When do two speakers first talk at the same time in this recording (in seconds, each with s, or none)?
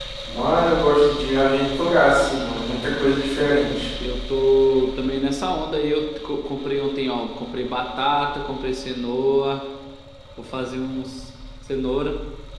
none